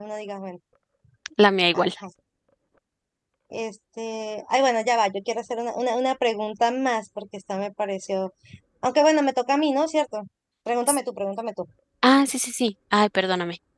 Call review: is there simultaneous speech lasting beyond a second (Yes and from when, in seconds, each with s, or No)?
No